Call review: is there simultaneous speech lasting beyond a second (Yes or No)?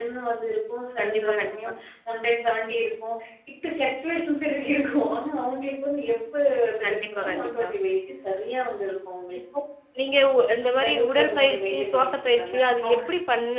Yes